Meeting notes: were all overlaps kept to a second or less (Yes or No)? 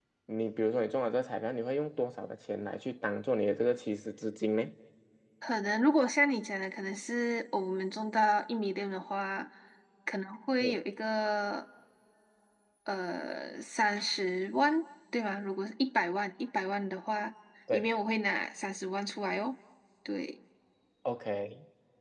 Yes